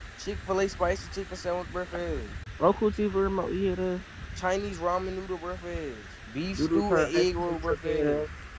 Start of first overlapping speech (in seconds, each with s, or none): 6.5 s